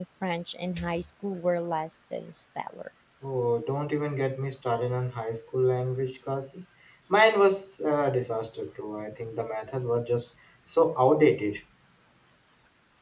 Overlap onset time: none

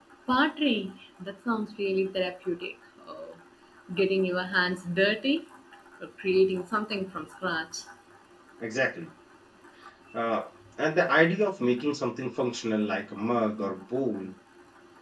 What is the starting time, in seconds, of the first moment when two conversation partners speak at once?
none

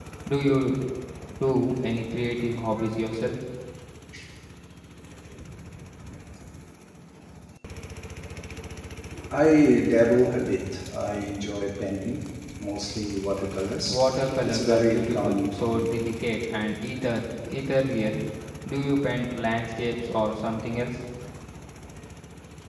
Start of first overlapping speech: 13.8 s

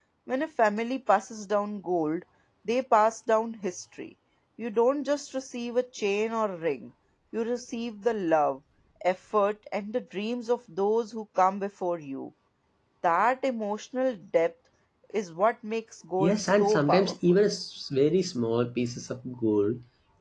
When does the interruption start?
16.2 s

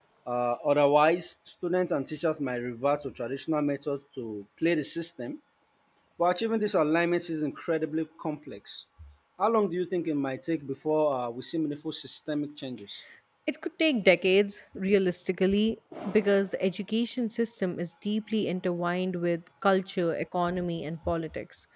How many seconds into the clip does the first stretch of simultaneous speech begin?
none

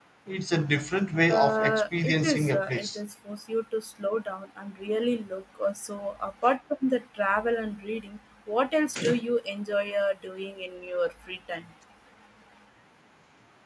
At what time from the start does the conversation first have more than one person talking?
1.3 s

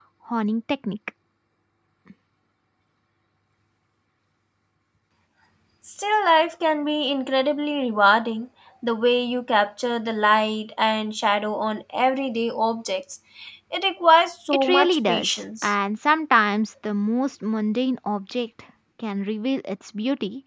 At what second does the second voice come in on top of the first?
14.5 s

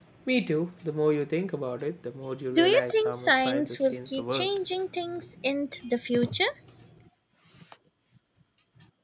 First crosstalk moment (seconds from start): 2.5 s

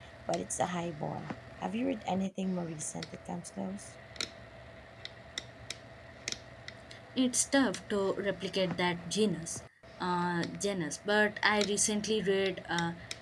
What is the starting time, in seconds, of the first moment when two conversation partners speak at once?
none

